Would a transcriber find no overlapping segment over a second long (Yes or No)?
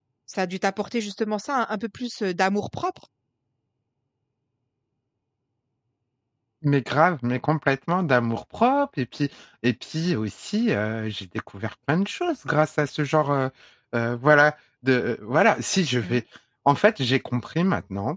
Yes